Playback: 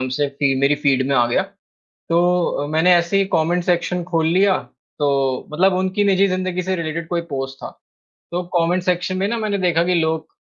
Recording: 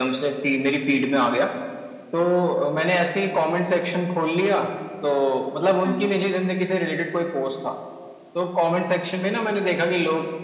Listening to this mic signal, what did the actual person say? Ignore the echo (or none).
अ, हाँ।